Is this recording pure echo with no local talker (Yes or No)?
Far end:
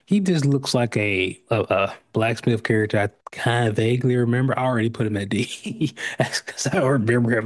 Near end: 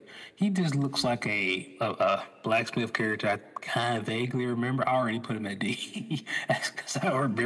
Yes